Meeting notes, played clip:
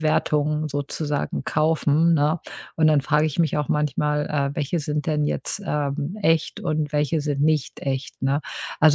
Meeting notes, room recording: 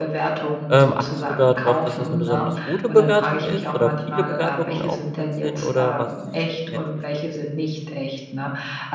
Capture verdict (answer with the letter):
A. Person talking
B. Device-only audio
A